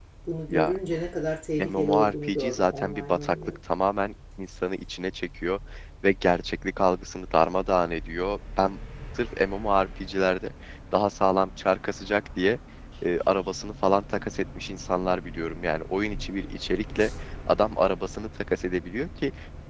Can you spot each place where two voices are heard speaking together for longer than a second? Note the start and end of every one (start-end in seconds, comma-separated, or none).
1.6-3.6